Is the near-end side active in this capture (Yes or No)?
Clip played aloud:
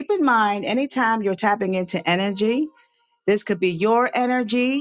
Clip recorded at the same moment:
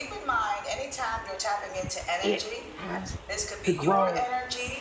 Yes